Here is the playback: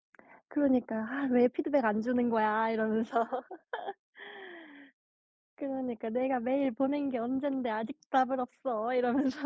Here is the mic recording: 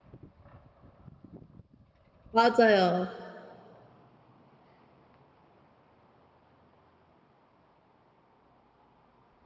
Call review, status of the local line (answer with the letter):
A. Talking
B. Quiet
A